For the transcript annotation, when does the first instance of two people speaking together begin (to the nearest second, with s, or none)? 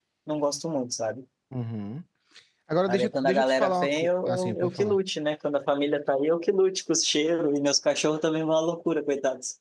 3 s